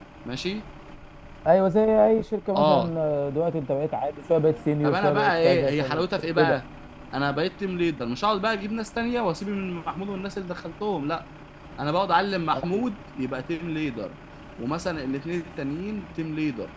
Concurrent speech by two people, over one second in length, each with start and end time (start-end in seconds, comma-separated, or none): 4.8-6.6